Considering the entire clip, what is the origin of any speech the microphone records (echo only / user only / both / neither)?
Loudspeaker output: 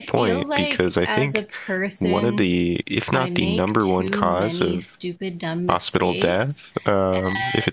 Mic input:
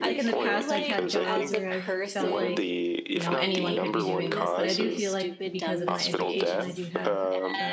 both